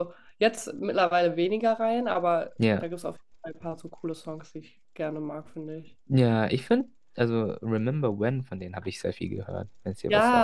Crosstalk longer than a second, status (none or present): none